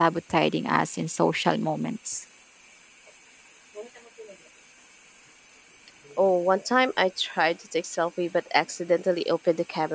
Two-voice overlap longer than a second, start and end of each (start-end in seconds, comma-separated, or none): none